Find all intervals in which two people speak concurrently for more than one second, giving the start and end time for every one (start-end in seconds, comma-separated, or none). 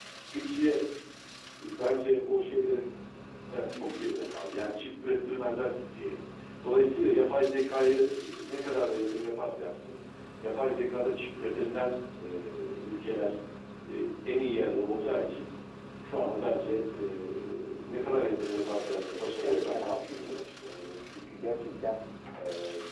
18.8-20.8